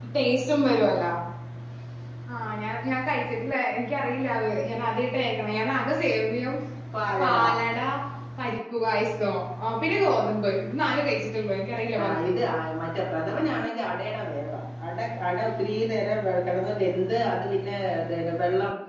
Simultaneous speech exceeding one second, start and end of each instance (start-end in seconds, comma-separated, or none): none